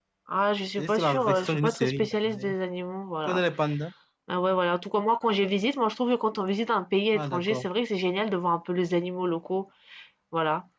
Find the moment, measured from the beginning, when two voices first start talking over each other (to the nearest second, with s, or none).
1 s